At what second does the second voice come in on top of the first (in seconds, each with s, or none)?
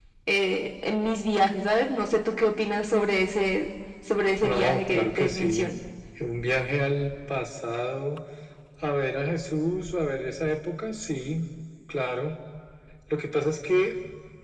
4.4 s